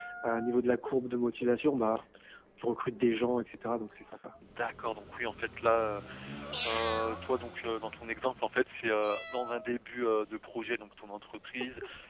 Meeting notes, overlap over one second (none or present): none